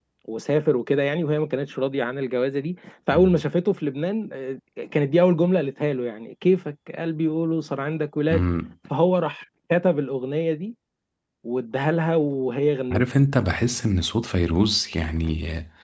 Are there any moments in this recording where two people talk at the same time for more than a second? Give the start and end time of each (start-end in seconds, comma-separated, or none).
none